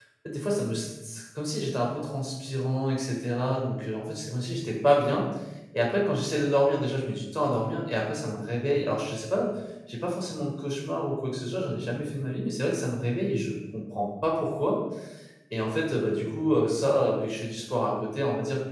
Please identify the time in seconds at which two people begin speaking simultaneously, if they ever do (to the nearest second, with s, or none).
none